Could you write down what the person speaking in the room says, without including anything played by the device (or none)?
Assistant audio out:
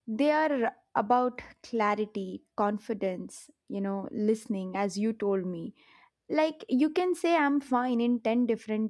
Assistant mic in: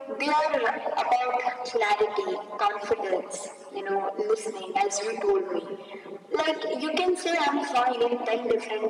none